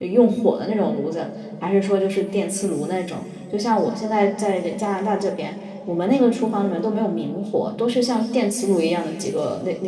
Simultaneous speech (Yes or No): No